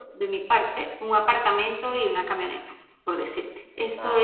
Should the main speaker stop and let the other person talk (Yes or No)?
No